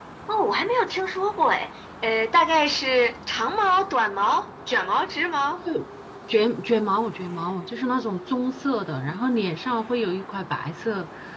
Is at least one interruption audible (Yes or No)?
No